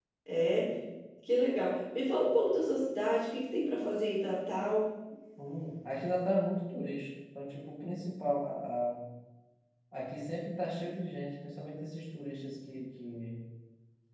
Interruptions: none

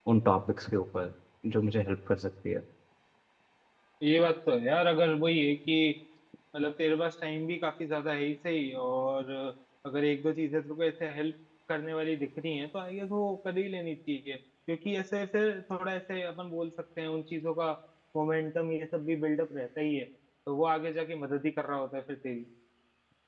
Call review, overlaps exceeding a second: none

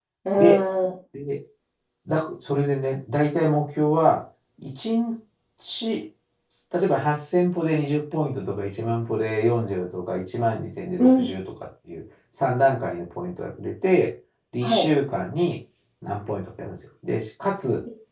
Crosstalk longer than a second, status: none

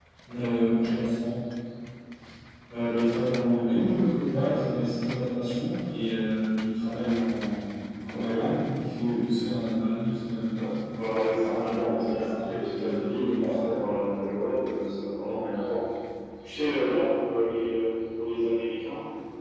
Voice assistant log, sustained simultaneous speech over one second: present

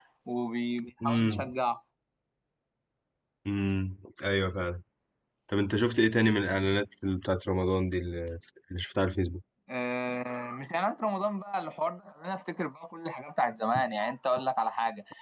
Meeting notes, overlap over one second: none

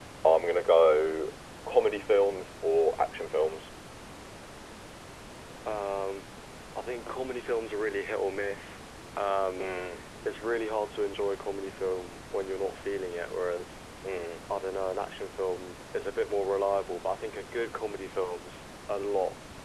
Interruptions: none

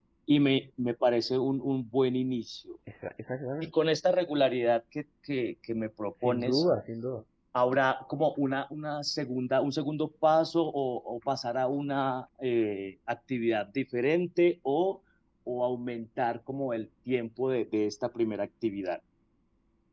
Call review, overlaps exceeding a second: none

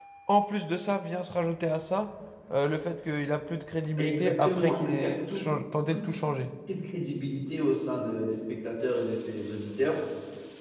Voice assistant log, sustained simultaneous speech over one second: present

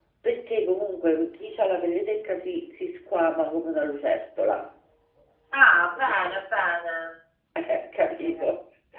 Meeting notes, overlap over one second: none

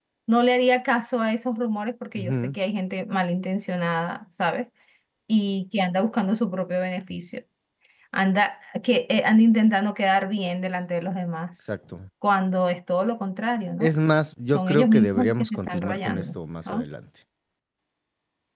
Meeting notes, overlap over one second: present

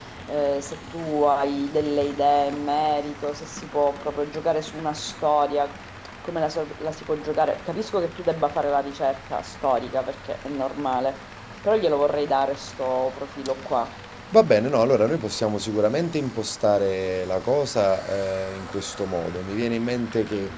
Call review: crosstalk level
none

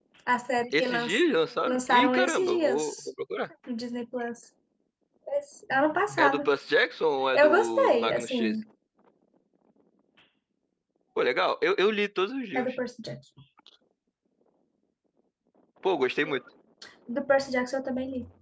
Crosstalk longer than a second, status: present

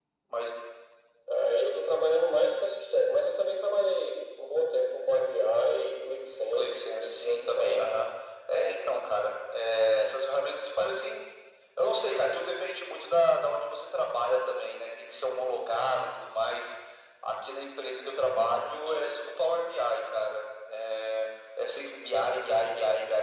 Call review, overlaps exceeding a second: present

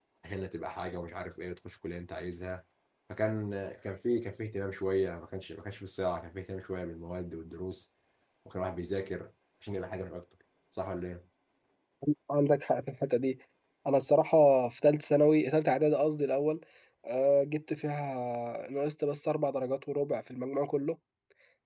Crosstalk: none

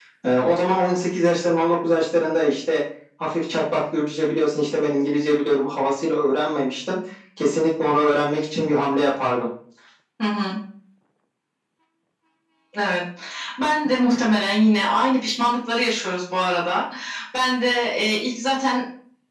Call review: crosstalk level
none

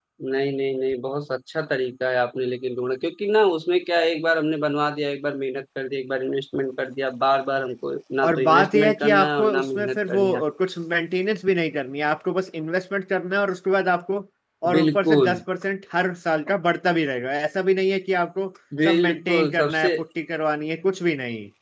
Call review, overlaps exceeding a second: present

